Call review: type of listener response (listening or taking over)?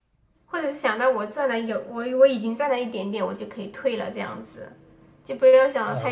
taking over